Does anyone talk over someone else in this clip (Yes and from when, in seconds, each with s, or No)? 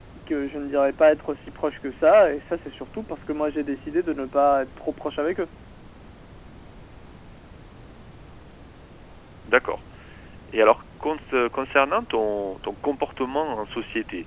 No